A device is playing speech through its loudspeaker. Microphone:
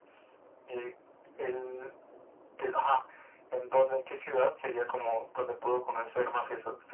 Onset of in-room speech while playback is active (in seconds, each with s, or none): none